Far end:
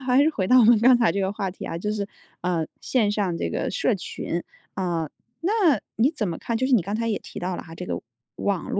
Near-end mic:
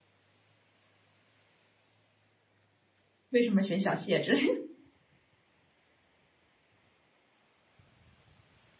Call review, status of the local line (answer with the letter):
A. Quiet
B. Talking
B